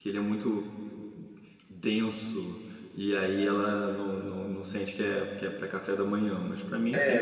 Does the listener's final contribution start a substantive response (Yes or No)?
Yes